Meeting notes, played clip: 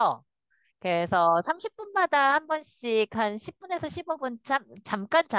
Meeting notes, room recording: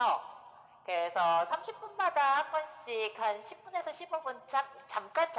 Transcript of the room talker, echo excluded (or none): none